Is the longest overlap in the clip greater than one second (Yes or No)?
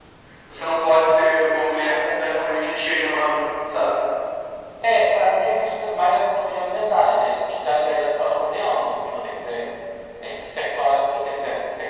No